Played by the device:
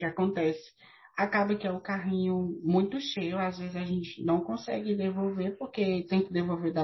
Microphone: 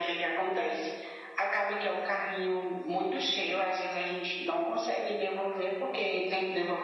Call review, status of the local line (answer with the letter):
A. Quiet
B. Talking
A